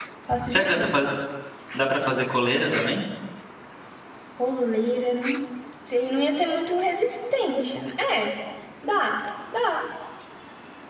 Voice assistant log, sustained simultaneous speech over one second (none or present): none